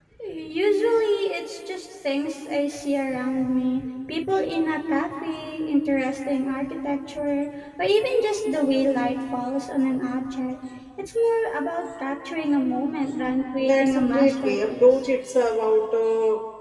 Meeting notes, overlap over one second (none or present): present